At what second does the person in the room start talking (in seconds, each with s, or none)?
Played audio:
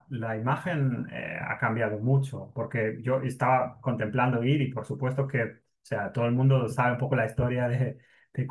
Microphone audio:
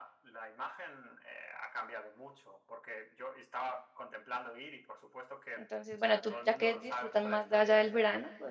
5.5 s